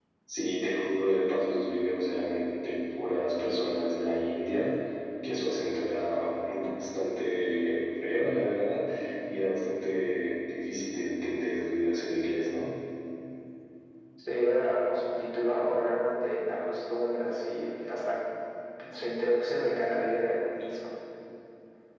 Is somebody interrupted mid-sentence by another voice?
No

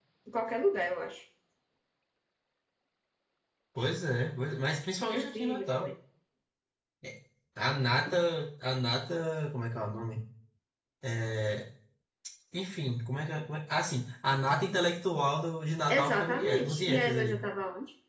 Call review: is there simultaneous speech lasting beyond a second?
Yes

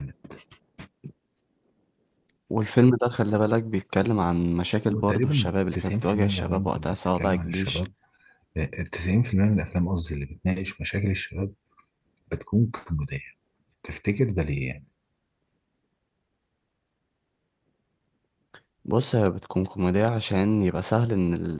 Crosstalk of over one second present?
Yes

